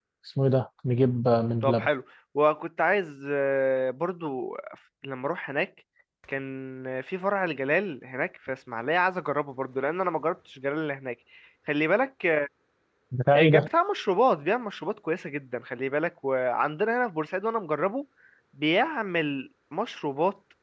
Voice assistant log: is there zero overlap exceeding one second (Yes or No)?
Yes